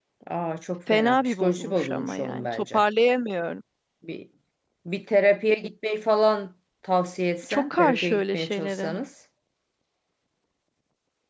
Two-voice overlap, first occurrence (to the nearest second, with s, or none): 1 s